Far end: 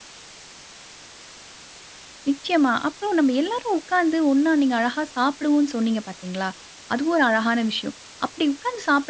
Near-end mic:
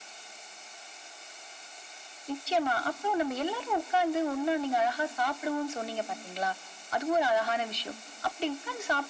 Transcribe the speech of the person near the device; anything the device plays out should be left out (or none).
none